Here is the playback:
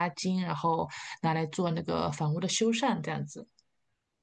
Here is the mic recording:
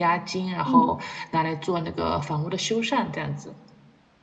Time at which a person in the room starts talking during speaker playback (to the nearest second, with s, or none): 1 s